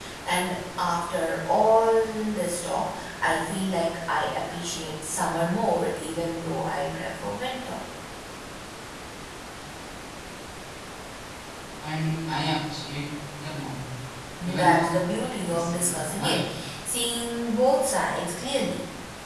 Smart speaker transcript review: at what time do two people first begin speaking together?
14.4 s

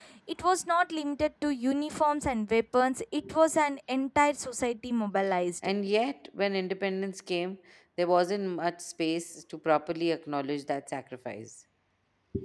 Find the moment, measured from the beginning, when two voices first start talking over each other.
none

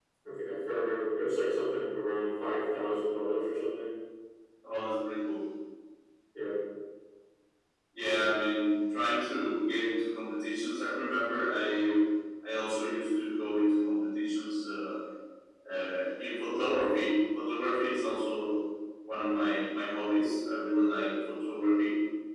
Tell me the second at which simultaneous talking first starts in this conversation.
none

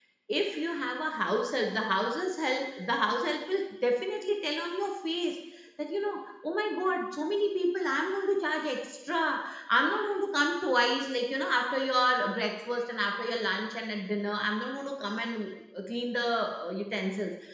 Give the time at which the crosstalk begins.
none

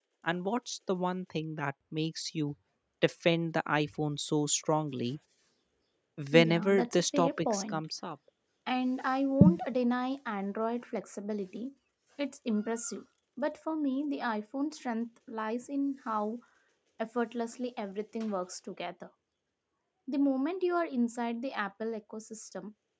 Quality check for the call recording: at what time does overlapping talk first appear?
6.3 s

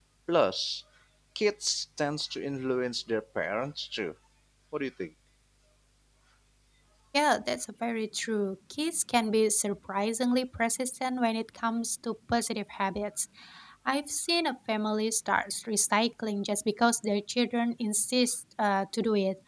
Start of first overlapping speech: none

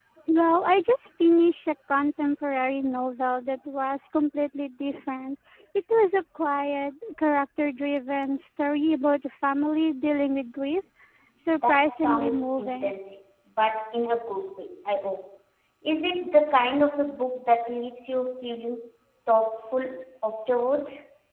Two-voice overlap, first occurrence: 11.6 s

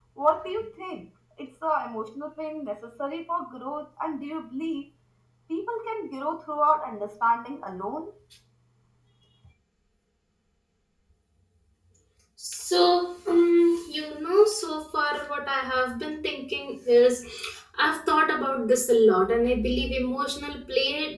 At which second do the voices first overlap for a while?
none

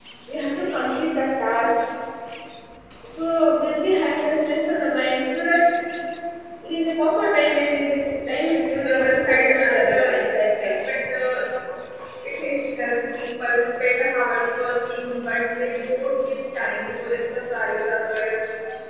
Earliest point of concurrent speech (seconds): 8.8 s

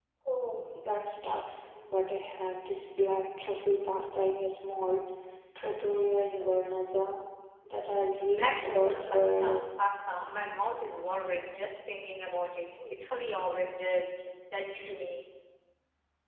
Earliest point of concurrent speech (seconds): 8.3 s

